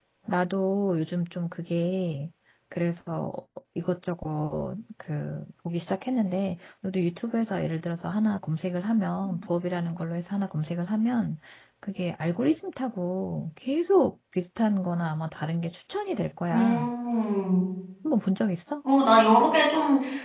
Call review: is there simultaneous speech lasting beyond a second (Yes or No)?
No